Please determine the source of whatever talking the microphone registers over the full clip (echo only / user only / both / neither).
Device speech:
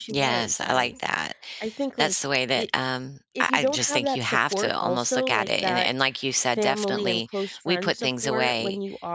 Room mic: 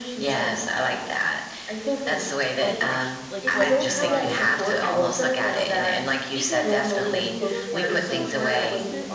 both